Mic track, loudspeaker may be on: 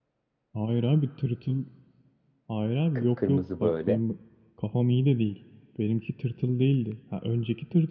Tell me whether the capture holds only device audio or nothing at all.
No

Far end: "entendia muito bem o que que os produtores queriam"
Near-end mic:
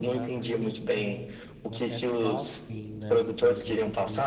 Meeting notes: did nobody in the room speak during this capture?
No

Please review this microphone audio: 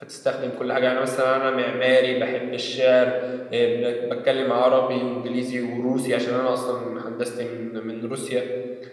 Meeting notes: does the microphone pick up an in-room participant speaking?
Yes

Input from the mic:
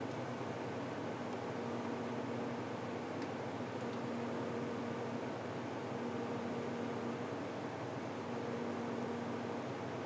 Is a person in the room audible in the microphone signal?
No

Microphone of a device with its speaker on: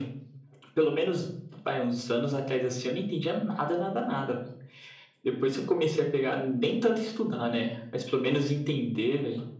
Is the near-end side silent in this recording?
Yes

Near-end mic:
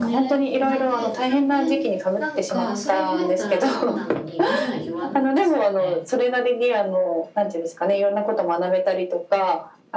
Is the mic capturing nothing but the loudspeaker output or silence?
No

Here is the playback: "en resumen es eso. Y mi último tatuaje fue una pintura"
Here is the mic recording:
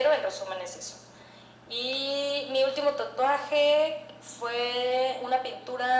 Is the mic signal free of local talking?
Yes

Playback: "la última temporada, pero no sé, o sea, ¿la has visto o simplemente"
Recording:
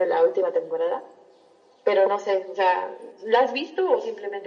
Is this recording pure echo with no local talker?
Yes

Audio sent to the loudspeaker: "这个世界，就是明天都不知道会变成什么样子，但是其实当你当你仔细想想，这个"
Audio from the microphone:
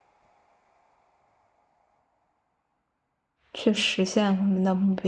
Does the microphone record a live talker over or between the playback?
Yes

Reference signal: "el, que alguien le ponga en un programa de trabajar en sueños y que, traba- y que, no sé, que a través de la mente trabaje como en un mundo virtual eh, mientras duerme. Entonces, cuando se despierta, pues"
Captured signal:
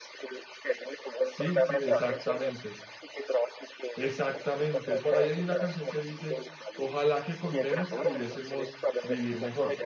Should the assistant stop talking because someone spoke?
Yes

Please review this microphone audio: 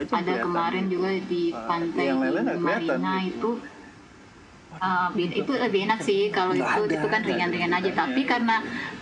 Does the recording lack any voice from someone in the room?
No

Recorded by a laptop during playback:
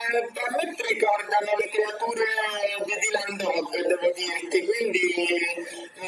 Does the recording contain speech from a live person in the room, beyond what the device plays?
No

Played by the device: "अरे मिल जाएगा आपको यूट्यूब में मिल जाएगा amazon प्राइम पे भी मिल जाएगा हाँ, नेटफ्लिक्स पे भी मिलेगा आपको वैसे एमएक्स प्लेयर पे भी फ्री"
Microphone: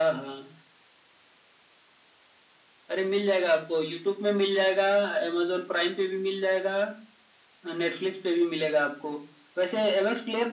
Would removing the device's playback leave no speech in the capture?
Yes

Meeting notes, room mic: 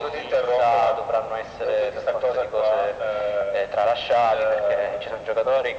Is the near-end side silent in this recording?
Yes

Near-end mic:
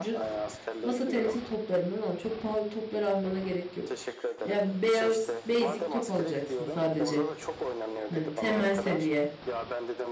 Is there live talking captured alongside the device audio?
Yes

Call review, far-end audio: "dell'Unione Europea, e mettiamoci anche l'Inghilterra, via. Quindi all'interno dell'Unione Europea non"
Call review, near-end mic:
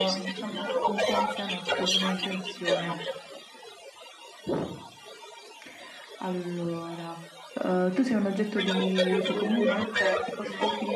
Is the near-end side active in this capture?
Yes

